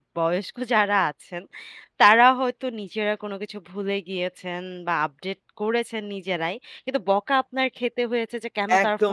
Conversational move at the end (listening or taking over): taking over